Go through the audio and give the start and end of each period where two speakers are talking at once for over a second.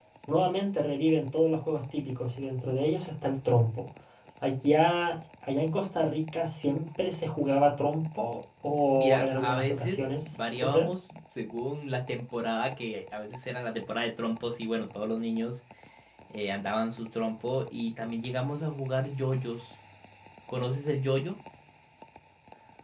9.0-10.9

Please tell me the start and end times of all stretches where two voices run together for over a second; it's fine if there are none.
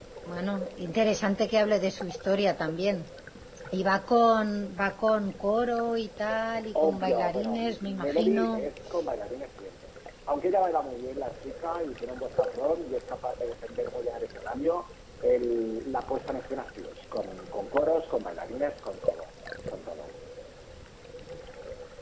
6.8-8.7

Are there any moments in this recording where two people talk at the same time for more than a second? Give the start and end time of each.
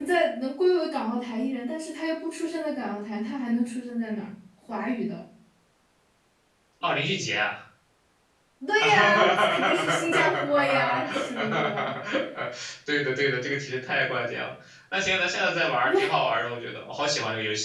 8.8-11.7

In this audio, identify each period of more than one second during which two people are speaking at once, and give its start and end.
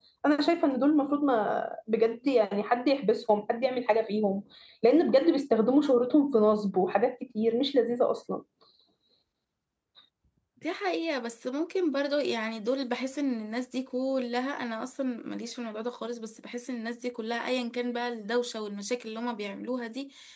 none

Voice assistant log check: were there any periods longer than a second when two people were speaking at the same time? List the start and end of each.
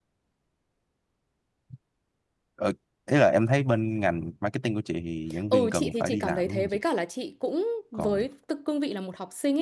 5.5-6.8

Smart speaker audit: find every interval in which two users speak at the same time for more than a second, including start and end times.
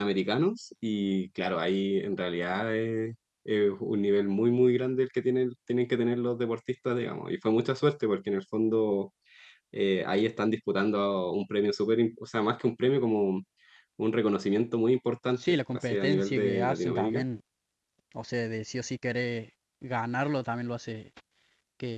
15.5-17.2

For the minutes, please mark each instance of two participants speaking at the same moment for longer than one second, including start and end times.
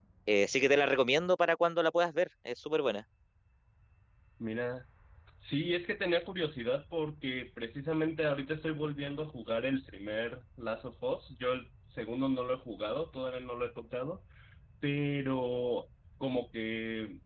none

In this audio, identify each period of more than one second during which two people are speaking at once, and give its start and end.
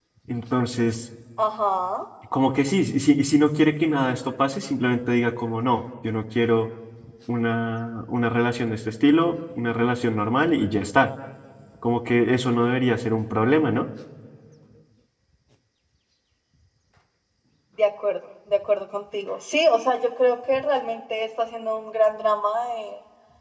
none

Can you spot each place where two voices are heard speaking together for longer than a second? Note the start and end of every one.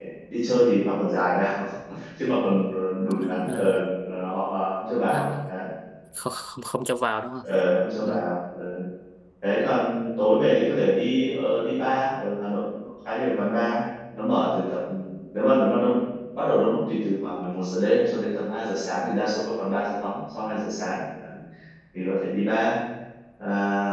none

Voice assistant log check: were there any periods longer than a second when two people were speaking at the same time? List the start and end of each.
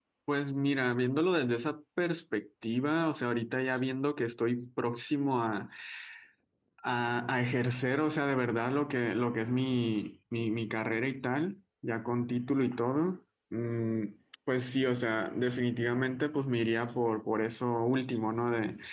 none

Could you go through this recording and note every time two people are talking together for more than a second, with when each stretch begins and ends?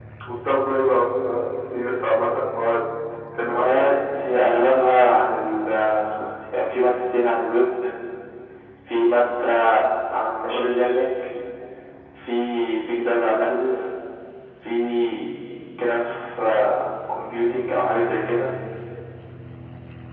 none

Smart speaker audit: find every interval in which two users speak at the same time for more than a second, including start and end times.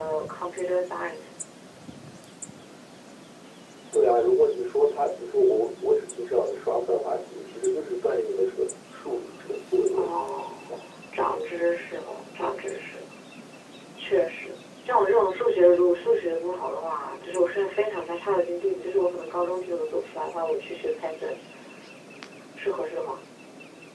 none

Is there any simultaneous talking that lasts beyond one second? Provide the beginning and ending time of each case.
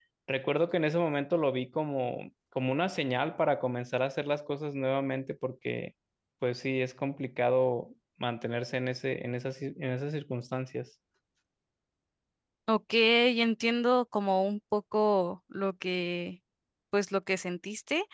none

